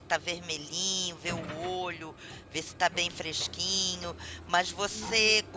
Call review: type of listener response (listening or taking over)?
listening